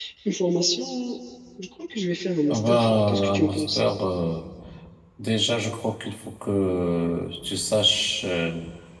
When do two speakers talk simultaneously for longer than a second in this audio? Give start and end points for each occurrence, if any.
2.5-3.8

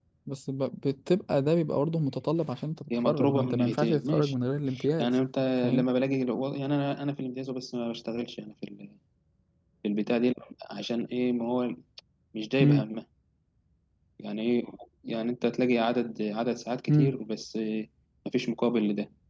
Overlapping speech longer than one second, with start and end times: 2.9-4.3

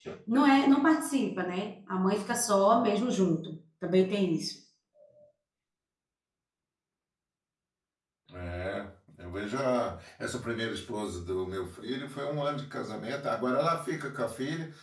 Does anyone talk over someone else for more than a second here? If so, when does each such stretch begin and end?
none

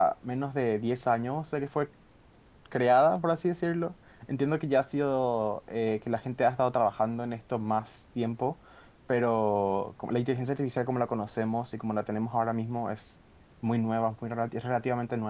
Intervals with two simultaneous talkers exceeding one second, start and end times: none

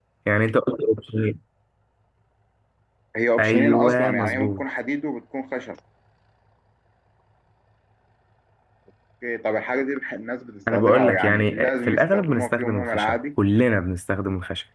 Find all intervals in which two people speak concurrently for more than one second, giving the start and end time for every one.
3.4-4.6, 10.7-13.2

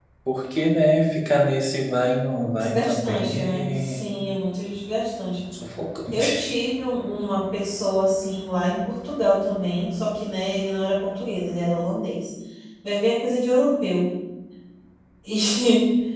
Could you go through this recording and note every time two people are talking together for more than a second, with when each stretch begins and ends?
2.5-4.0

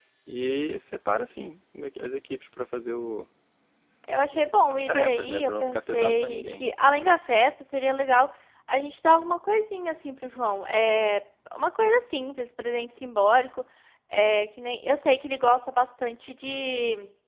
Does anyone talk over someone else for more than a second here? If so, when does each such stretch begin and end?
4.7-6.7

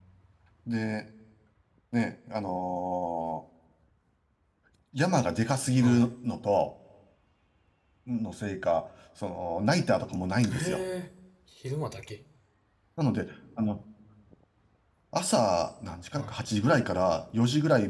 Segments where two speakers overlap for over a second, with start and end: none

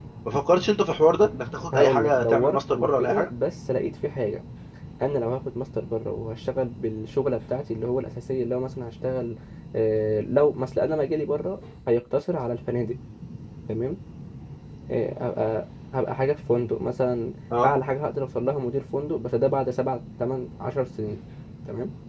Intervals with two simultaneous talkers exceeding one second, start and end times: 1.7-3.3

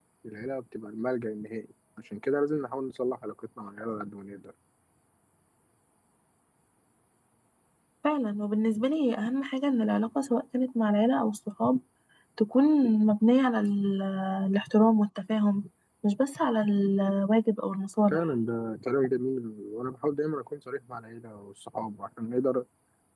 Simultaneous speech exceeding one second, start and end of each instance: none

